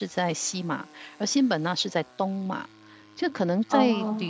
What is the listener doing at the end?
listening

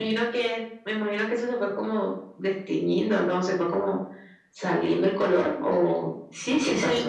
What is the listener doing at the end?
taking over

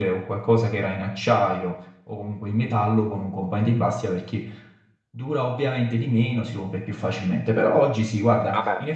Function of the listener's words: listening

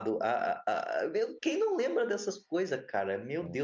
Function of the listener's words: listening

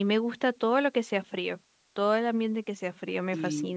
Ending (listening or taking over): taking over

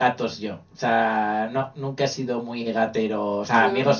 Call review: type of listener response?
listening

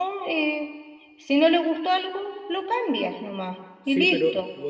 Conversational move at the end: taking over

